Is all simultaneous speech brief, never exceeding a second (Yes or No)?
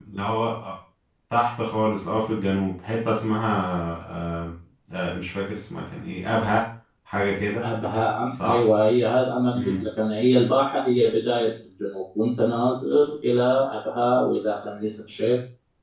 Yes